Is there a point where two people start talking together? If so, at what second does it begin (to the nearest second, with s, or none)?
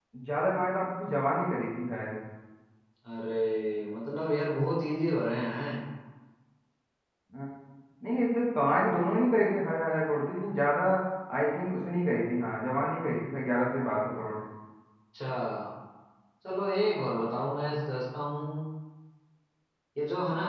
none